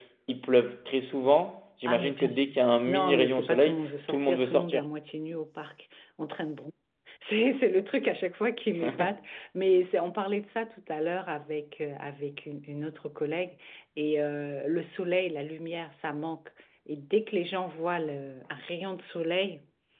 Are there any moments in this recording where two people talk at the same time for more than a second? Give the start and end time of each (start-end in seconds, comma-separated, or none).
1.9-4.8